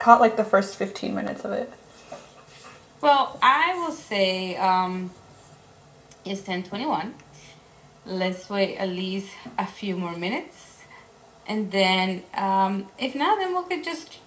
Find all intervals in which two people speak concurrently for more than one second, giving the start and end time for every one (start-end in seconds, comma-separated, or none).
none